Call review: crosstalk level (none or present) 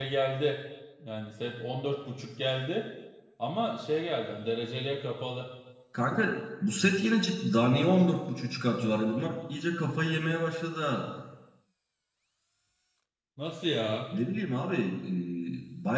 none